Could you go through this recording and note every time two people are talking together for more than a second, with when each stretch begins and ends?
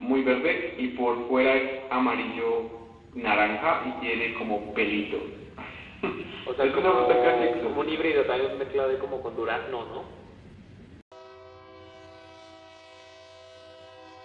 6.6-8.0

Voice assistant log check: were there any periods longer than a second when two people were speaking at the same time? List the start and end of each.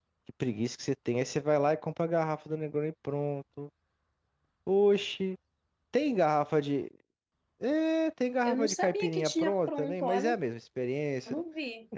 8.4-10.3

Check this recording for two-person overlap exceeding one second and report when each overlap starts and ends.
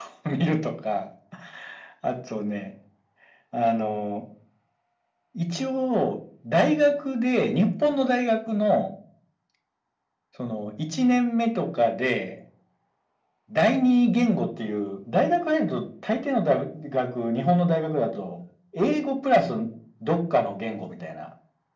none

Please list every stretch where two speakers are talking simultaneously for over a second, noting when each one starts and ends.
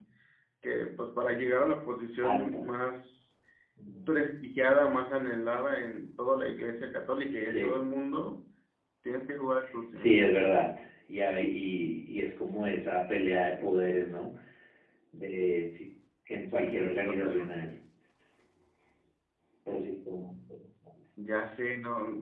16.5-17.7

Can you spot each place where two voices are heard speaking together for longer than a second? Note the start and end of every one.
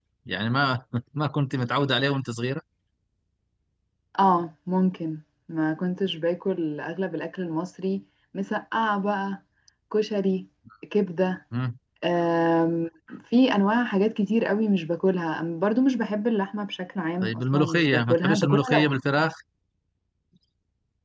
17.2-18.8

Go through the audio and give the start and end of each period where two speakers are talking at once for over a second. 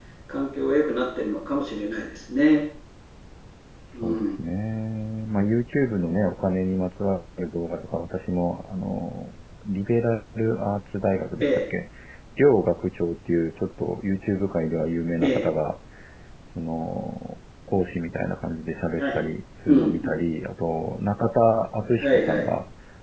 none

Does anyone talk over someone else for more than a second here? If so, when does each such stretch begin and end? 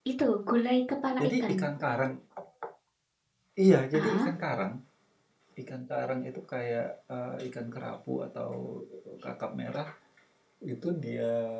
none

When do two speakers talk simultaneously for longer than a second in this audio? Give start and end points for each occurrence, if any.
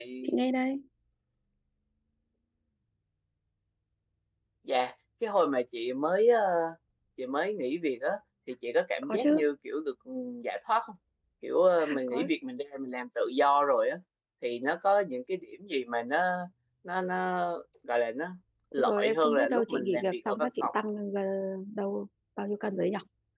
18.8-20.7

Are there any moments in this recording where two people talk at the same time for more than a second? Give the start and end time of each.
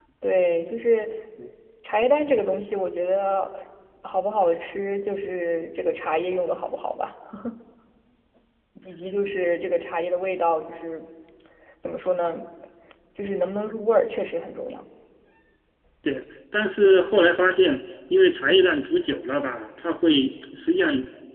none

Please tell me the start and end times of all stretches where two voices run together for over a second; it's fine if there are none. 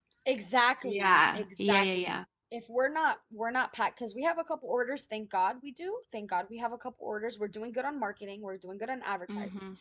0.8-2.2

